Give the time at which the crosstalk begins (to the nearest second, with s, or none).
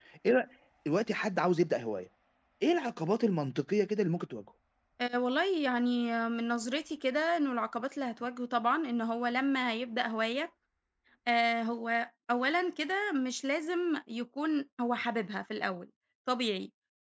none